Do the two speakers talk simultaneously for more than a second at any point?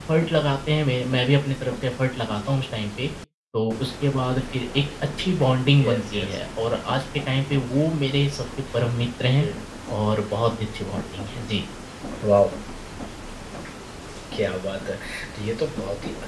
No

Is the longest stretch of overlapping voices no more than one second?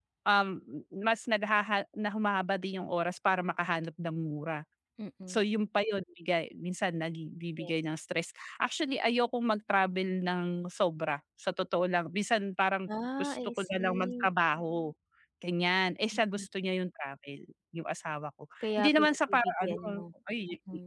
No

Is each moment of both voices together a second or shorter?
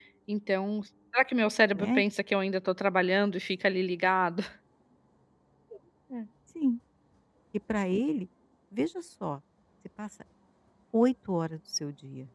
Yes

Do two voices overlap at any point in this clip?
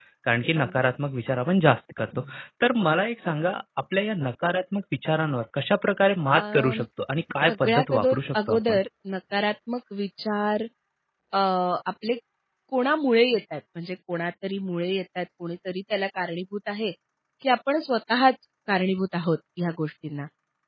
Yes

